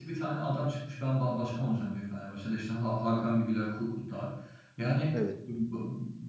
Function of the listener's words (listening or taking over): listening